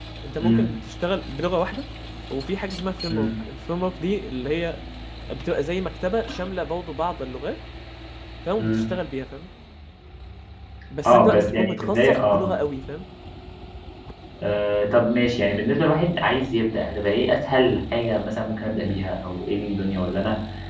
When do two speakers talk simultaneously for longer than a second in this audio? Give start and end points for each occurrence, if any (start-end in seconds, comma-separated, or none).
11.1-12.5